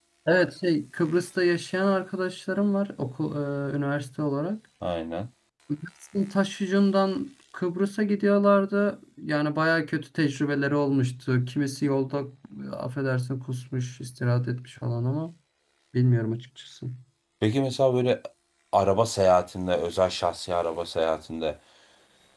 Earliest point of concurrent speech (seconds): none

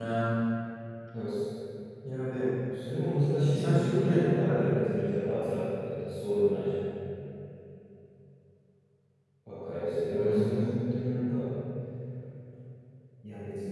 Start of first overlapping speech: 3.5 s

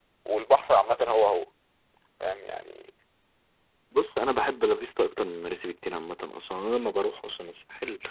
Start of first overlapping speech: none

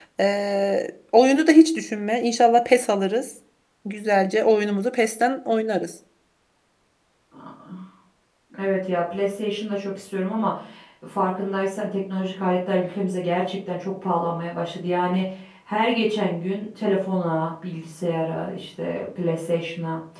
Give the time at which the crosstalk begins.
none

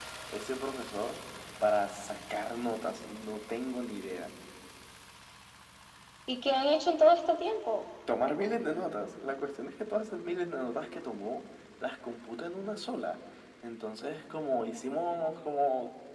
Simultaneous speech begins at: none

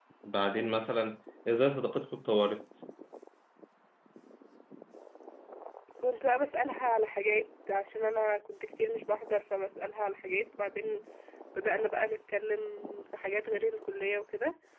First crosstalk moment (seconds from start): none

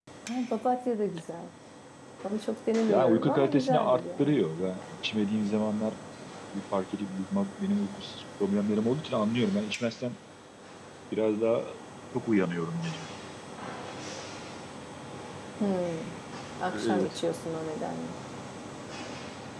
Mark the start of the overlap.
2.9 s

